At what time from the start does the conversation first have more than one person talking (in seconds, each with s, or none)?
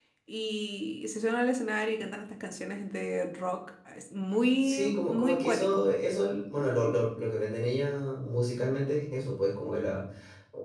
4.6 s